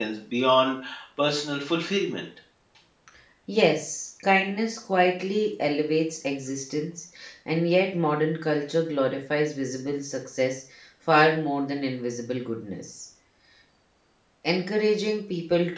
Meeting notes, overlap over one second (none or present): none